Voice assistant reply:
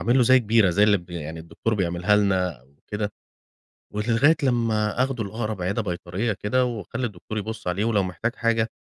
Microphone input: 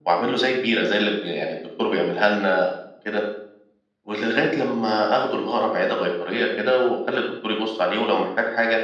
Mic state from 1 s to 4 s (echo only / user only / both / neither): echo only